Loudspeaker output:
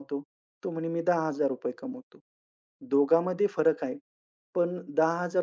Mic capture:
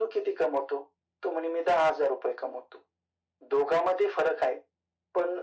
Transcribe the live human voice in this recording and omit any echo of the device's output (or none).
none